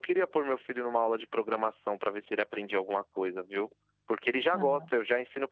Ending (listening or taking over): listening